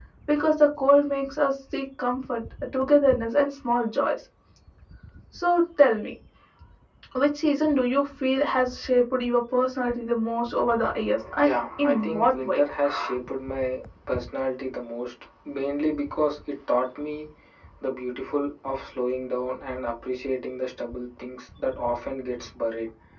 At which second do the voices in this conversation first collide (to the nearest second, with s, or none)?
11 s